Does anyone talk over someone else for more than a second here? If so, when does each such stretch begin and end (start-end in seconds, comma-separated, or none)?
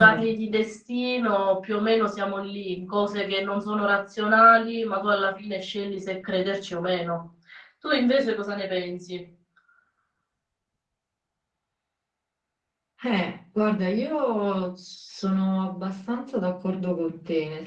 none